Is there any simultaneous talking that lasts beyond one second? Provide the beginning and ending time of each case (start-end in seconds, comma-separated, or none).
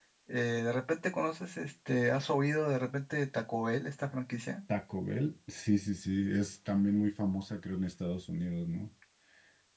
none